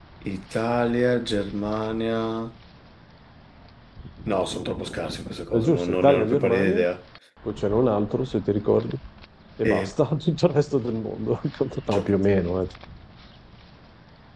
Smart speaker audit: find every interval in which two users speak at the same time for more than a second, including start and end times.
5.6-6.8

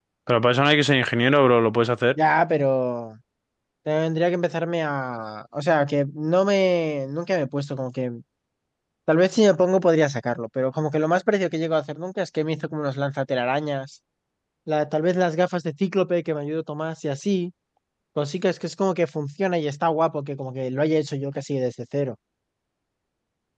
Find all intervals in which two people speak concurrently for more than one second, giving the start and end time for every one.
none

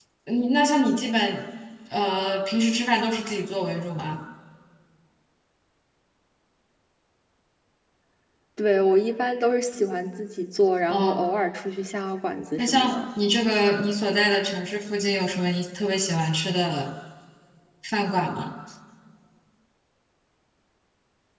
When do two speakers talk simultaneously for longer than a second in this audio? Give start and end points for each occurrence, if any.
none

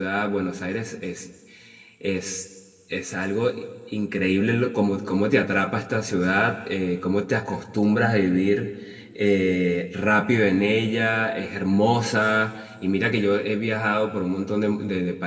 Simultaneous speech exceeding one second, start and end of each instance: none

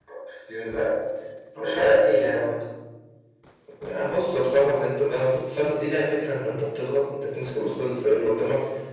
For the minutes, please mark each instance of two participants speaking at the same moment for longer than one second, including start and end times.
none

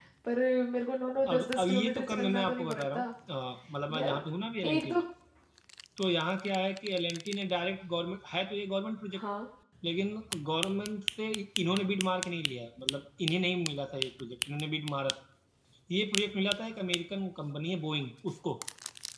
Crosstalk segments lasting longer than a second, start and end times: 1.3-3.0

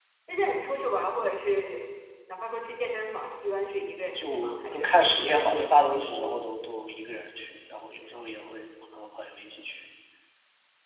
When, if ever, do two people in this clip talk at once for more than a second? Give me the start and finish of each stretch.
4.2-5.4

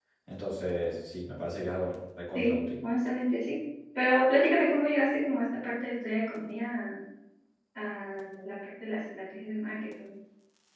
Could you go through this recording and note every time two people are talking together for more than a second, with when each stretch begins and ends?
none

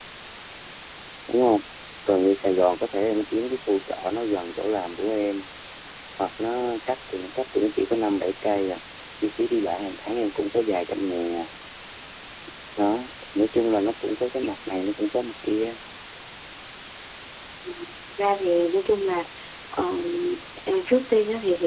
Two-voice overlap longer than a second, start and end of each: none

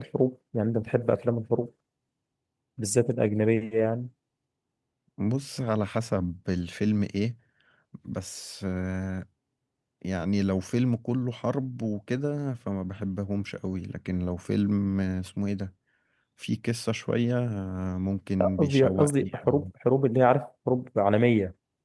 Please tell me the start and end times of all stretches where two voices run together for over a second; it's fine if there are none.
18.4-19.6

